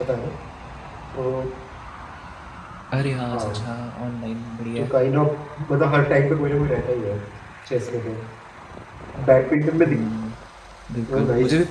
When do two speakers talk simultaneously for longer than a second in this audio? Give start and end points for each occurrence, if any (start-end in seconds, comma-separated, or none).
none